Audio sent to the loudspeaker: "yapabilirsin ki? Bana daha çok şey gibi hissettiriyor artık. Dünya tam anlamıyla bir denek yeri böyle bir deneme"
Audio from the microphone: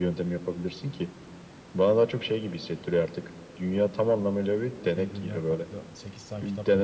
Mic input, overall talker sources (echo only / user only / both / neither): both